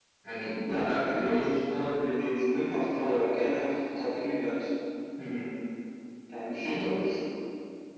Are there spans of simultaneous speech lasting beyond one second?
Yes, from 0.6 s

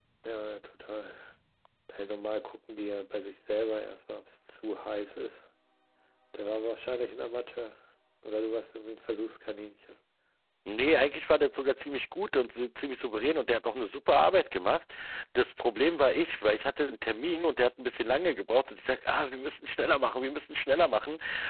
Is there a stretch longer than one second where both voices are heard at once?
No

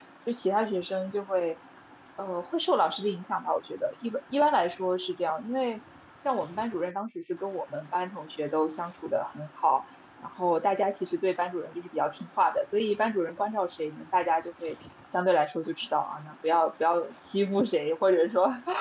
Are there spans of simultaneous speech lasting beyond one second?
No

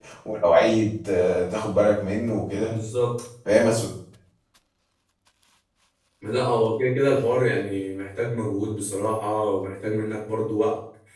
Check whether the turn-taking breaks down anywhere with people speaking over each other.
No

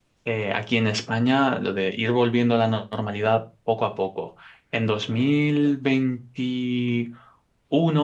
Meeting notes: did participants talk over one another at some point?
No

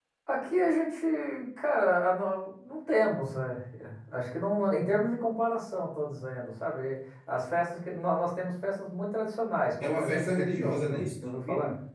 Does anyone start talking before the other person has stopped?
Yes, from 9.8 s

